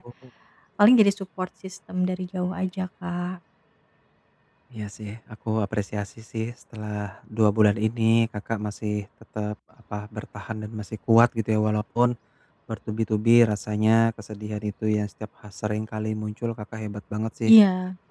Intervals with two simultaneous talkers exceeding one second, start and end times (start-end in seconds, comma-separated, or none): none